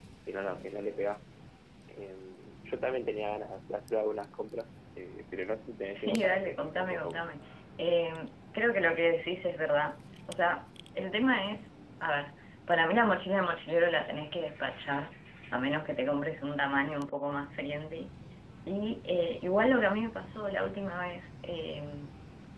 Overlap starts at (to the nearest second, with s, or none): 6 s